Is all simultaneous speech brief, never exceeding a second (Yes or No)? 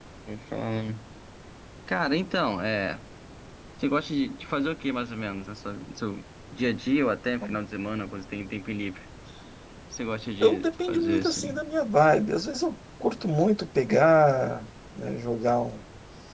No